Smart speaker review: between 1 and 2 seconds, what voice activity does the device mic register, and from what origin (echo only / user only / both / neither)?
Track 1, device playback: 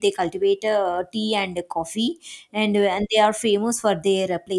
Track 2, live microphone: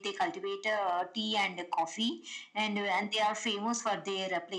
echo only